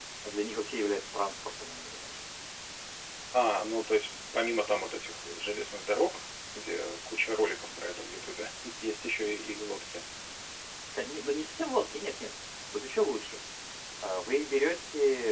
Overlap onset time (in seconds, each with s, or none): none